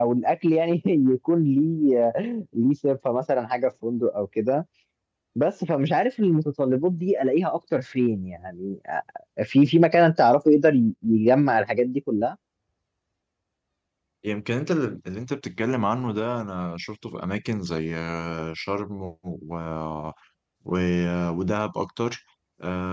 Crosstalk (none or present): none